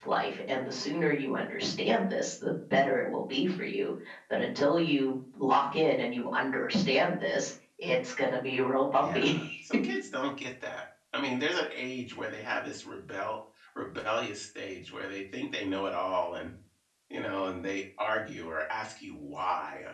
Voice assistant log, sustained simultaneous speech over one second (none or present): none